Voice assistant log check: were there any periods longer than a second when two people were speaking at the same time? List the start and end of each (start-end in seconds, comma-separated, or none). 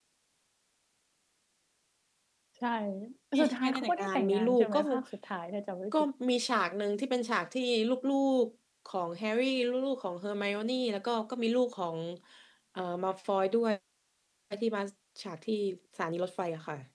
3.4-5.0